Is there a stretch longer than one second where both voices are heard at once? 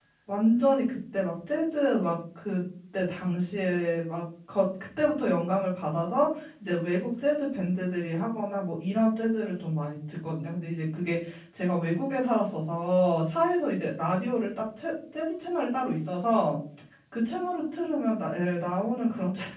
No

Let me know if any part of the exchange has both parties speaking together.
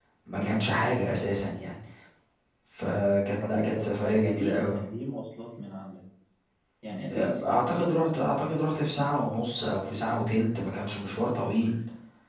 Yes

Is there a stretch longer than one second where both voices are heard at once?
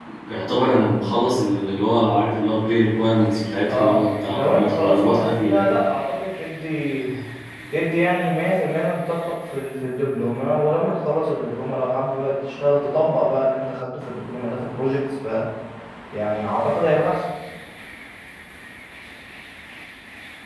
Yes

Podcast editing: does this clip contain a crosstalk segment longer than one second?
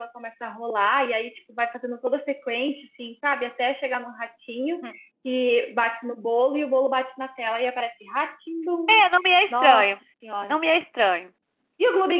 No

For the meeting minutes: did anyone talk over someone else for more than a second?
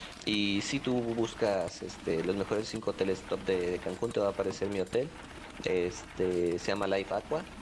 No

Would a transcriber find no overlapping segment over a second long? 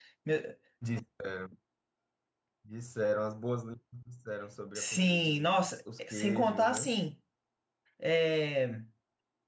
No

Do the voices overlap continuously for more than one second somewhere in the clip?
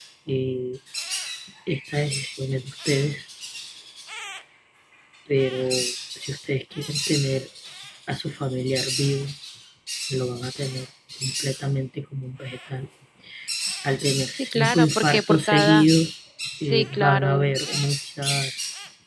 Yes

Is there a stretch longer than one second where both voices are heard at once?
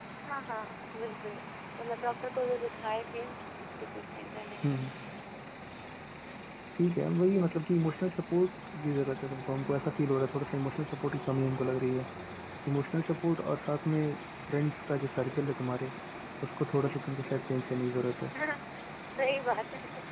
No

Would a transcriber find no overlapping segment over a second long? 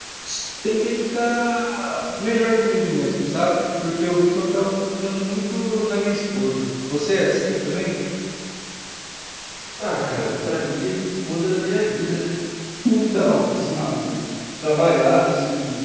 Yes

